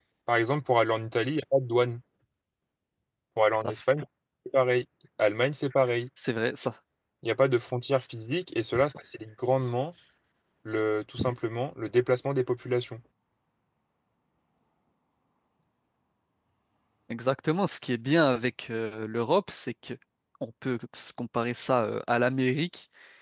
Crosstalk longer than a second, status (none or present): none